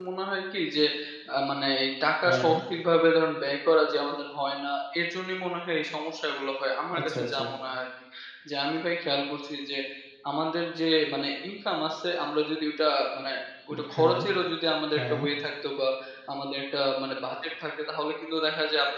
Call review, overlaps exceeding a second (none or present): none